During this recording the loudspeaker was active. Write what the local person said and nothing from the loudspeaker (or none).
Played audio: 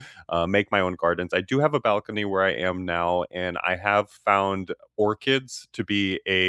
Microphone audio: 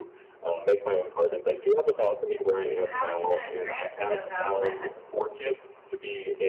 How are you gonna transfer those out west?